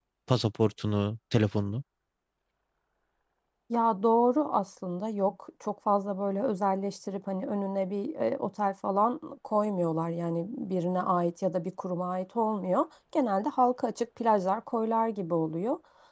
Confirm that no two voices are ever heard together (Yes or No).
Yes